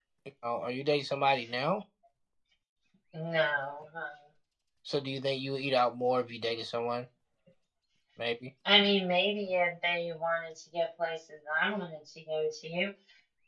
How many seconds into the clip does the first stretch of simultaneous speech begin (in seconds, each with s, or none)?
none